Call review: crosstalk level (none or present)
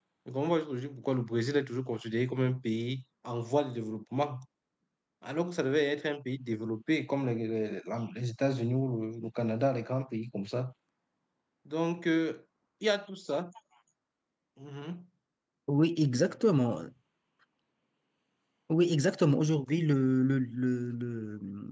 none